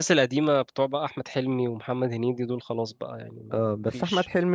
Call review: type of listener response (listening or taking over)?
taking over